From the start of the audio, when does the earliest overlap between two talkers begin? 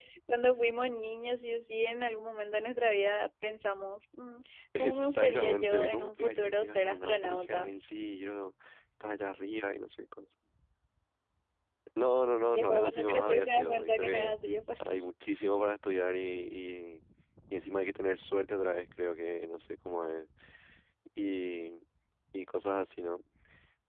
4.8 s

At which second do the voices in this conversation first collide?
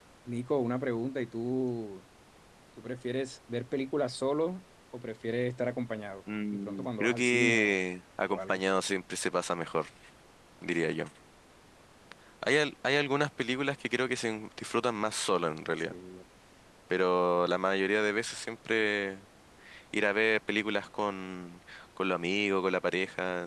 6.5 s

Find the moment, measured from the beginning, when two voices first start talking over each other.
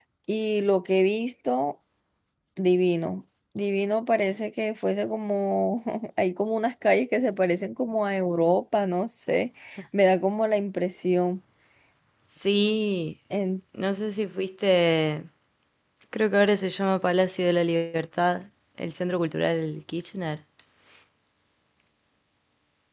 none

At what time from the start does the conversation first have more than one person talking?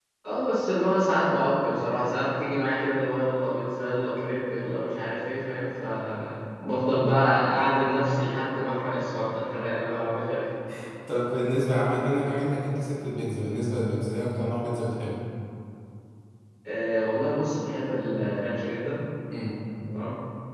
none

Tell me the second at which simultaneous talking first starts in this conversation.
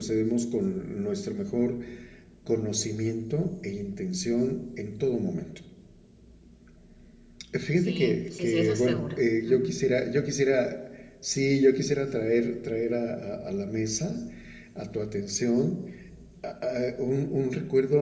7.8 s

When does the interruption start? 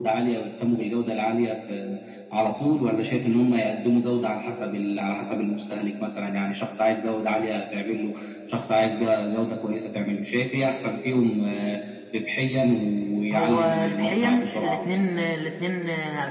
13.3 s

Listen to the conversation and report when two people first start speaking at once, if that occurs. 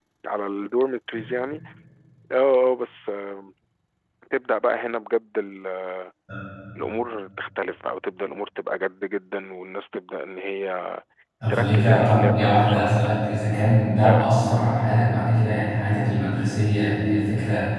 11.5 s

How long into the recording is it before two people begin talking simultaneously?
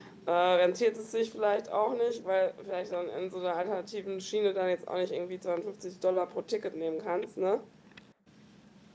none

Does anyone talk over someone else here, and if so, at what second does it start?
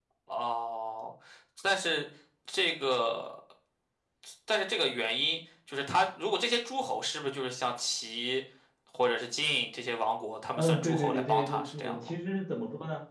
10.6 s

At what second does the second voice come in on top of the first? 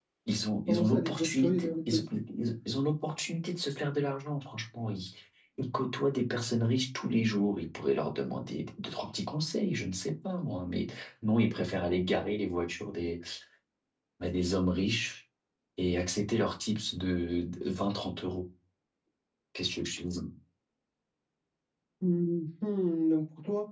0.7 s

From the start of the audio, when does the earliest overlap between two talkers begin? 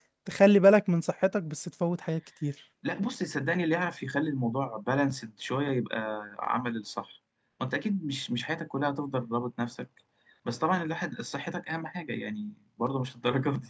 none

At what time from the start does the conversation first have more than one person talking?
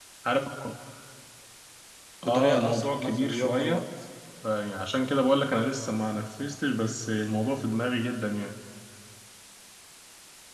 2.2 s

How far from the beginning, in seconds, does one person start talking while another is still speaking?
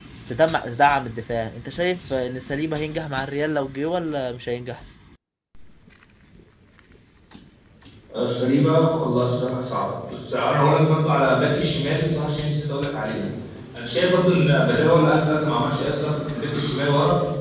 none

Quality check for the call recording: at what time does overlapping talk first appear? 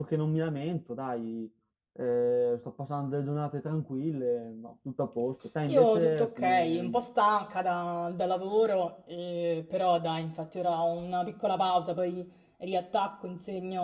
5.7 s

